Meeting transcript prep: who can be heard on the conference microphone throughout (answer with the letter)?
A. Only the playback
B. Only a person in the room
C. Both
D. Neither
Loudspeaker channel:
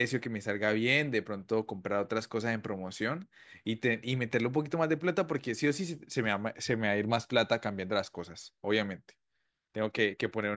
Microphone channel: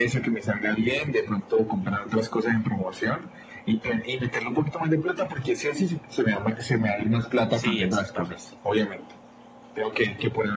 C